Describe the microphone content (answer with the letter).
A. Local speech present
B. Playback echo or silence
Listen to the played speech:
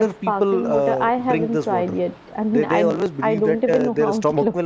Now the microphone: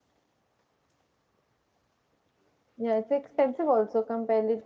A